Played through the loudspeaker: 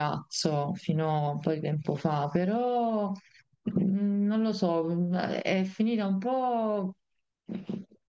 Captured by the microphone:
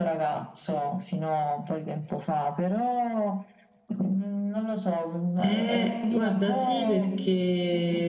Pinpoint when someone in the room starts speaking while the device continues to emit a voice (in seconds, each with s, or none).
5.4 s